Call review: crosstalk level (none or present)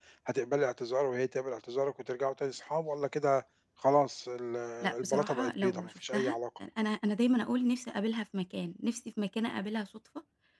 present